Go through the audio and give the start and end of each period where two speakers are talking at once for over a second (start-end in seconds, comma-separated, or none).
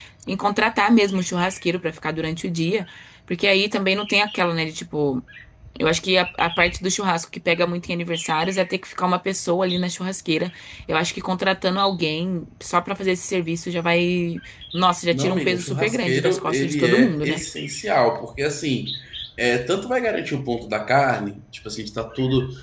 15.1-17.4